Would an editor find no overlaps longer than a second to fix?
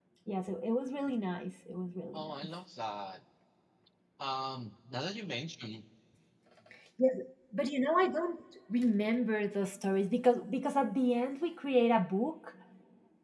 Yes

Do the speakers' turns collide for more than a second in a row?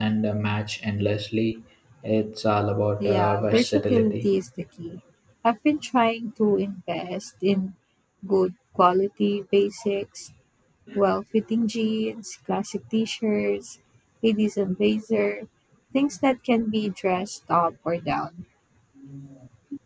Yes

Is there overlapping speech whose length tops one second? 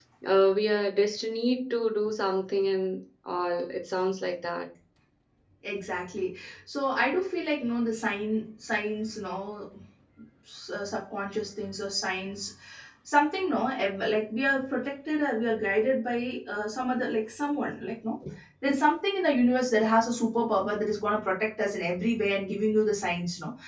No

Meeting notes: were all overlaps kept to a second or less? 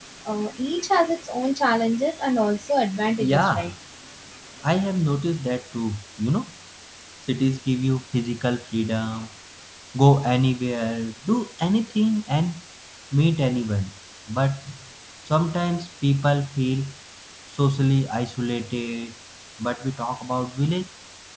Yes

